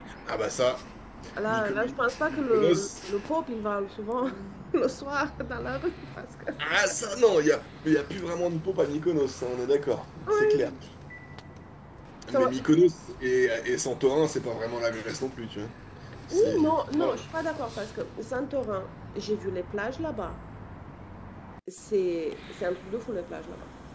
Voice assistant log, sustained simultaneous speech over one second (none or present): present